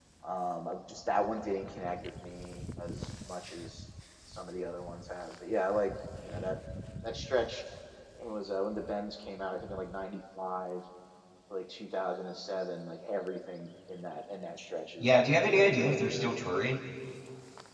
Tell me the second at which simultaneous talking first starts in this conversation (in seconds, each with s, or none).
15.0 s